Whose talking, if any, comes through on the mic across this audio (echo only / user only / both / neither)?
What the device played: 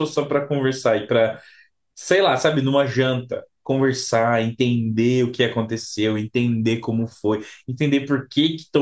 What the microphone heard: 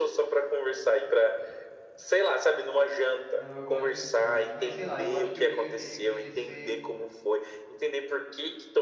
both